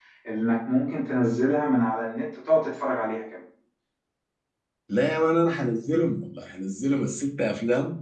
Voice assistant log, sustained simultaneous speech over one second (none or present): none